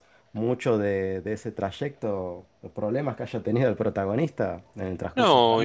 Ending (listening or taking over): taking over